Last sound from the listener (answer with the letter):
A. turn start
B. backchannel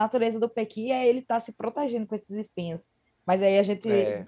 B